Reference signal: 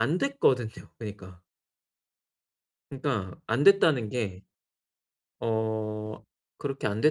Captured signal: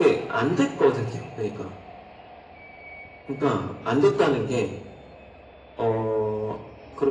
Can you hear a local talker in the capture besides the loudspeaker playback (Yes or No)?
No